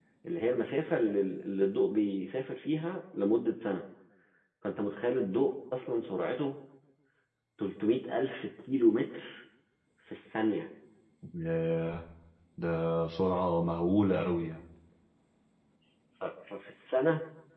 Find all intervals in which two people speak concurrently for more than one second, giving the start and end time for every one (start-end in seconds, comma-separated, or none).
none